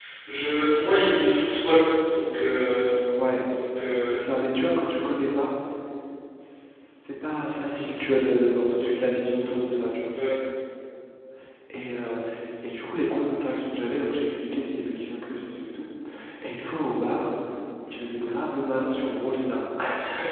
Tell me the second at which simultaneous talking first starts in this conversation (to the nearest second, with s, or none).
none